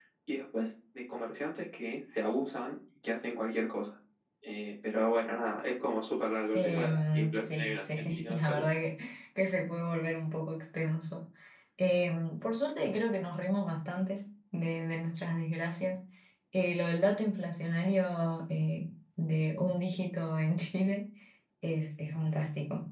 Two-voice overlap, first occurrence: 6.5 s

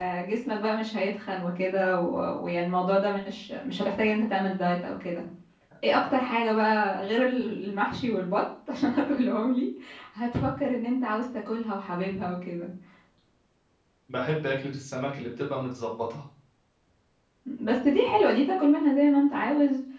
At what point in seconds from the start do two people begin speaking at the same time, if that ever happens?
none

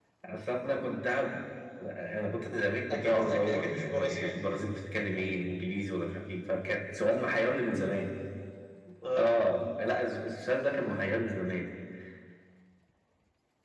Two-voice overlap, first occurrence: 2.9 s

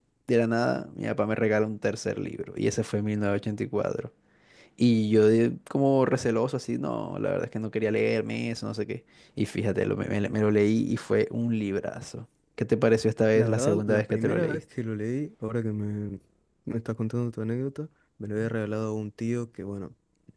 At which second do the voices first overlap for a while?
13.4 s

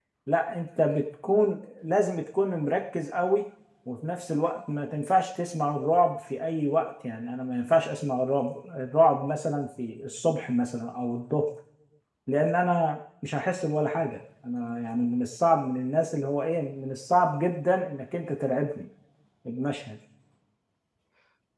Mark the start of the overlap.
none

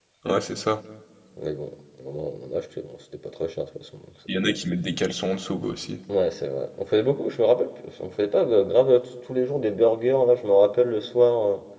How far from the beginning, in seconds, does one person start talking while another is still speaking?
none

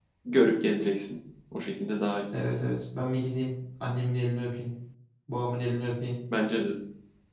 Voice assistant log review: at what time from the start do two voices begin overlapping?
none

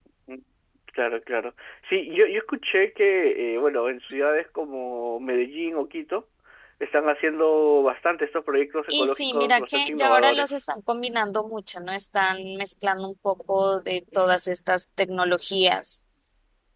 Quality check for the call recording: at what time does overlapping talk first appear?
8.9 s

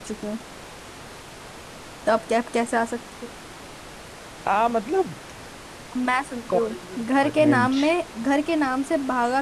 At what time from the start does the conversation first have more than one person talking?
6.5 s

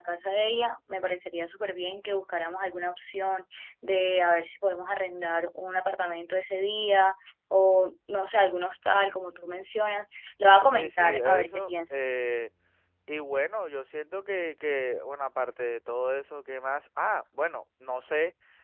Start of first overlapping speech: 10.7 s

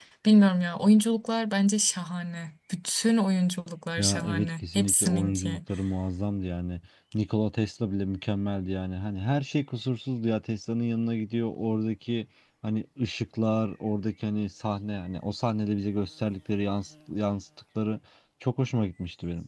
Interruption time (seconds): 4.0 s

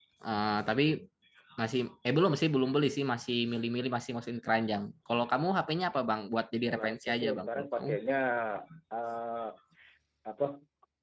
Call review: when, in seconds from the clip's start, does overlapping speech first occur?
6.7 s

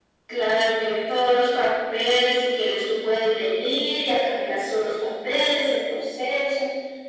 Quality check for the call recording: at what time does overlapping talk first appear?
none

